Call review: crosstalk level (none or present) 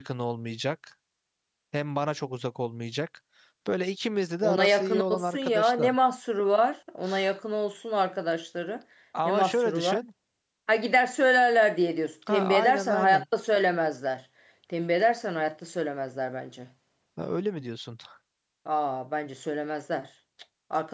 present